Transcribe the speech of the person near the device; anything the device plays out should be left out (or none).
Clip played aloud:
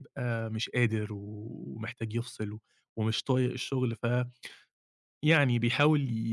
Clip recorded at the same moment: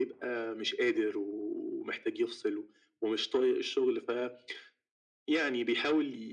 none